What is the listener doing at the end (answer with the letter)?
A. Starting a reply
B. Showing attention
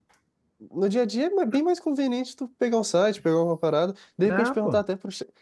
B